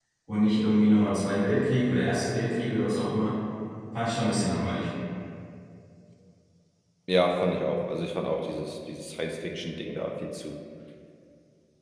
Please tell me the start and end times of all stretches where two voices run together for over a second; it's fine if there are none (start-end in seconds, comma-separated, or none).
none